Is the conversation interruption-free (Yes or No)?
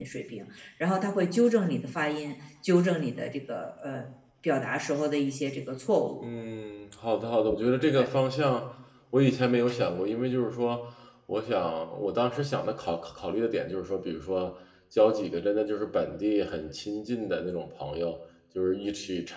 Yes